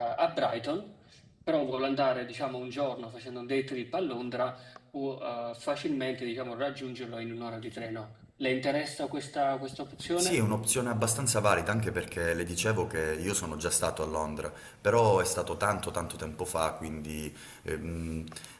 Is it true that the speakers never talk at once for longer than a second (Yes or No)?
Yes